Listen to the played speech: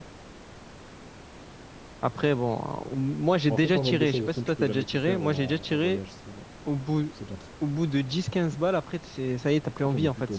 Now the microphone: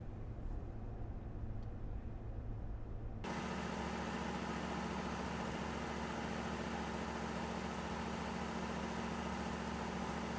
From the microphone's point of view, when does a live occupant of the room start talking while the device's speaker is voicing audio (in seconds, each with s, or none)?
none